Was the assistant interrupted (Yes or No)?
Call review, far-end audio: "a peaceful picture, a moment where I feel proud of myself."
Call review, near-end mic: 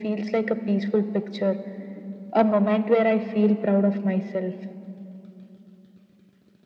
No